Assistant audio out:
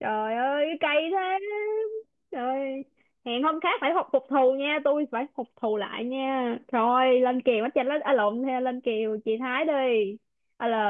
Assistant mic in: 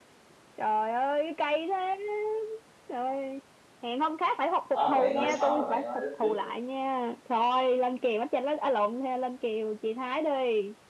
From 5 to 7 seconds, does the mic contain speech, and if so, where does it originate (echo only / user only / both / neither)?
both